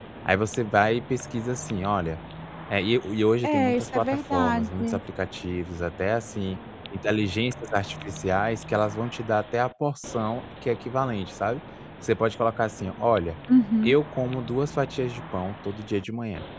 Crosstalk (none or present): present